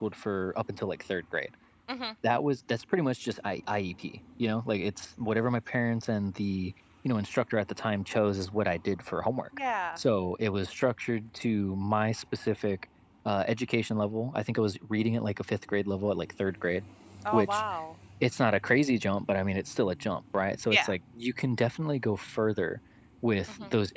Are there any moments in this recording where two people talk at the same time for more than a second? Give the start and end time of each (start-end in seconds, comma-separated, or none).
none